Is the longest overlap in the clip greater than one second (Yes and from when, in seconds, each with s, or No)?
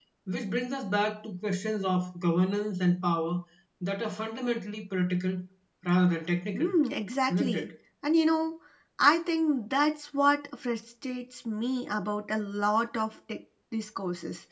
No